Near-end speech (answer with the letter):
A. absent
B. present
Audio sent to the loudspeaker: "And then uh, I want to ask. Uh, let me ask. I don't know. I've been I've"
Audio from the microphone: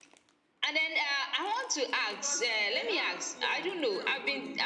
B